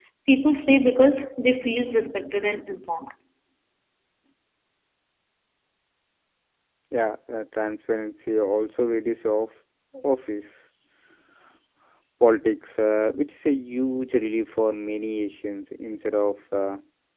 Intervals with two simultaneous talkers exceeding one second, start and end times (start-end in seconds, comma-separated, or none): none